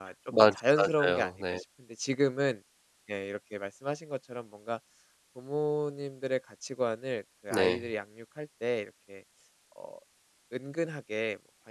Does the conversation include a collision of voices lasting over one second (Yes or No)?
Yes